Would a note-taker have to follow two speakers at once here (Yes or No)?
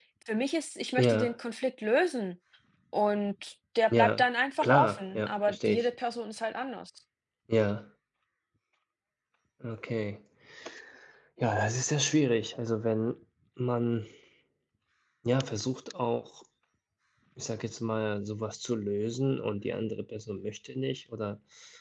Yes